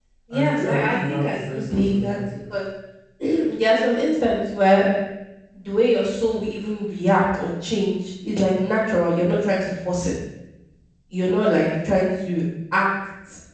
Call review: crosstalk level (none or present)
present